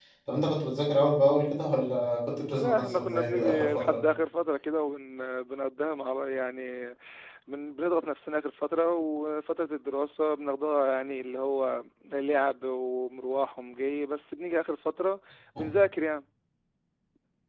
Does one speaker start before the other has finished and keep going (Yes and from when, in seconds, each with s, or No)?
Yes, from 2.5 s